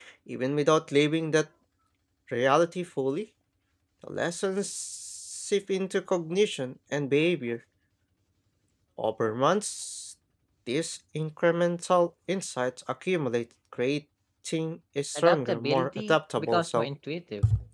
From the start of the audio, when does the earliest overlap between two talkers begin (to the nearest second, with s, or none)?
15 s